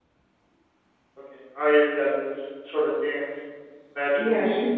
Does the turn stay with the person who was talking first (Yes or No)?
No